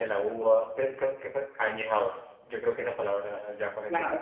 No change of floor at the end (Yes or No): No